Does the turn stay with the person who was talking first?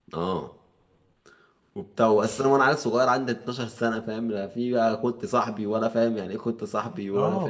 No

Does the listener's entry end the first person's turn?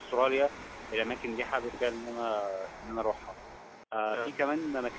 No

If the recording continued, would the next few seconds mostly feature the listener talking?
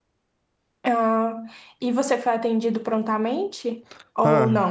Yes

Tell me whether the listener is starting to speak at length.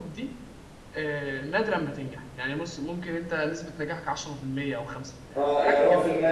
Yes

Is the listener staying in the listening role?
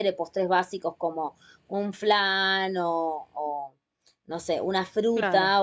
Yes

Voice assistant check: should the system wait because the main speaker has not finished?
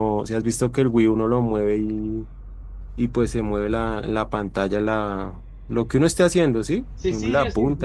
No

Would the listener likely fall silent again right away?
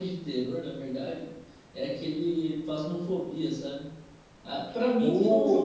Yes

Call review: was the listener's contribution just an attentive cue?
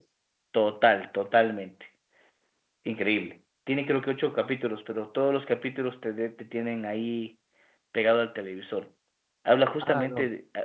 Yes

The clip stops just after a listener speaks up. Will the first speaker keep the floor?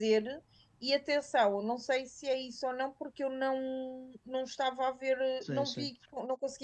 Yes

